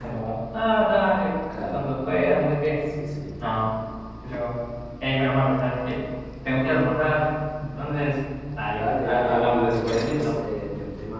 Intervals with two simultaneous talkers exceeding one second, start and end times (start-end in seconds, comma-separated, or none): 8.7-10.4